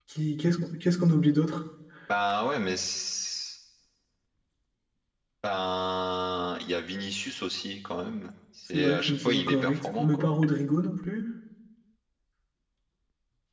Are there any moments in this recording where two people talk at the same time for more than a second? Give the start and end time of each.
8.7-10.2

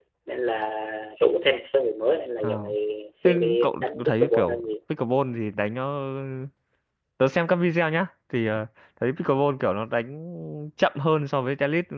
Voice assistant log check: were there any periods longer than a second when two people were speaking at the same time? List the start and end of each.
3.2-4.7

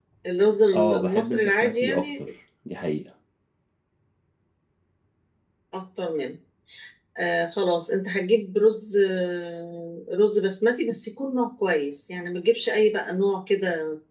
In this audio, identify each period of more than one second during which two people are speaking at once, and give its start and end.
0.7-2.1

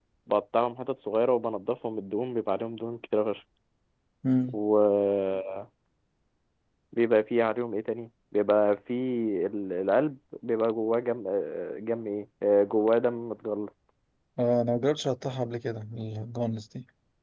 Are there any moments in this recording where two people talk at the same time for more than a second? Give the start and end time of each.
none

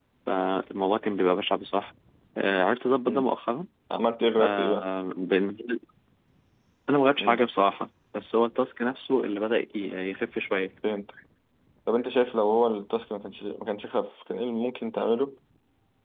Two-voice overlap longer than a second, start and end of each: none

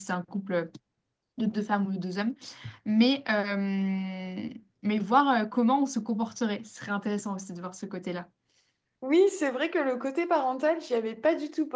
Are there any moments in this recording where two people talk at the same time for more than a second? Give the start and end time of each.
none

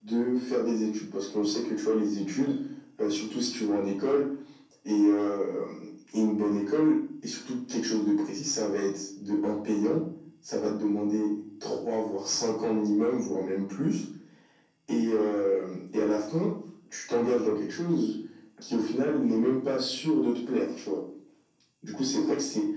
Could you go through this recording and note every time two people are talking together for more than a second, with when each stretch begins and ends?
none

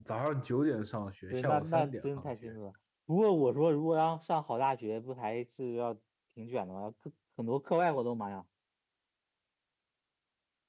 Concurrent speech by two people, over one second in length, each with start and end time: 1.3-2.5

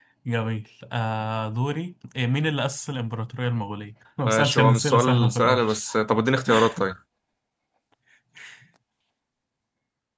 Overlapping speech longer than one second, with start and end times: 4.2-5.7

